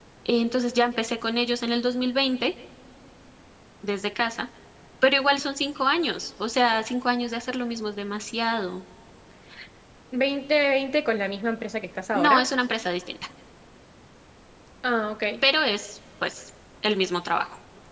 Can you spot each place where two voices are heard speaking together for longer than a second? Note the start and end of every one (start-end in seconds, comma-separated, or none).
none